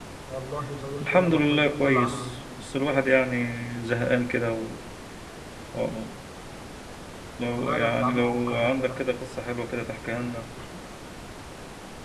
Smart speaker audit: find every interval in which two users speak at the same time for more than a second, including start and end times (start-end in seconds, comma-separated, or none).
1.0-2.2, 7.6-8.9